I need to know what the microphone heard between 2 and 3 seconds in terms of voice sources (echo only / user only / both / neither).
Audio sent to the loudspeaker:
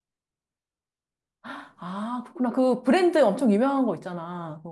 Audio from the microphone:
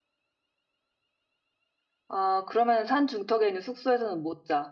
user only